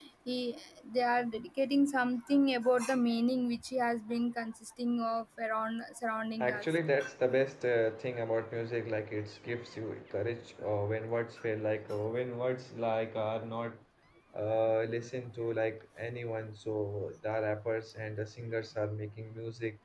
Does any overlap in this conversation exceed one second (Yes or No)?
No